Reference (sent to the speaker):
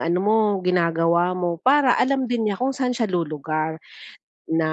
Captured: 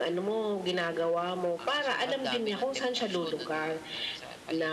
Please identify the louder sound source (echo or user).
echo